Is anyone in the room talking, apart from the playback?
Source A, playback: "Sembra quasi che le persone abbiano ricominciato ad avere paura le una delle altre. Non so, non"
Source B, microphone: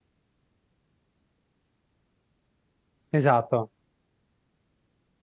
Yes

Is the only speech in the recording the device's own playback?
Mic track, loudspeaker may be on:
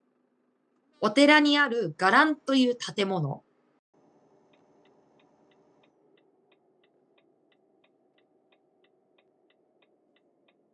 No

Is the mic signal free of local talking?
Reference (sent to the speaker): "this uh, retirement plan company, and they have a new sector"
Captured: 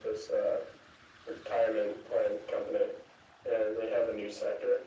Yes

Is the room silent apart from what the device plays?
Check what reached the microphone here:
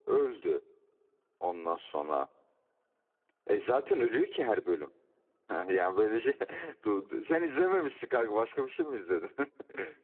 Yes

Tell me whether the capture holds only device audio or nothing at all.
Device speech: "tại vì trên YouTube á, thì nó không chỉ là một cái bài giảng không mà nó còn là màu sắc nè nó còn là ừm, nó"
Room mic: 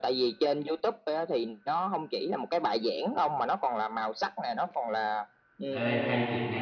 No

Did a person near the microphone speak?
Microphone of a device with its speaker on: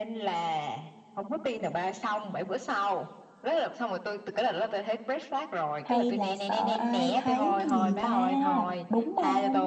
Yes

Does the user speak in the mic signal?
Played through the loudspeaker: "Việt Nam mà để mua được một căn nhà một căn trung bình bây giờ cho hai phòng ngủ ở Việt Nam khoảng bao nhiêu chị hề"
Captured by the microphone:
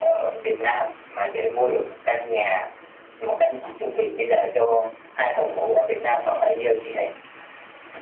No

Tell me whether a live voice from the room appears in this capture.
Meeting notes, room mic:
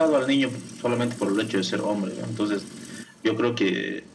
No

